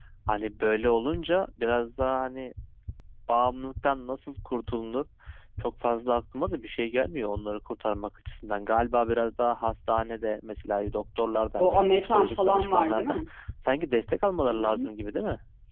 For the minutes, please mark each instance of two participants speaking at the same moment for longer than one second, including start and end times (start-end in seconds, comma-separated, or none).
11.6-13.2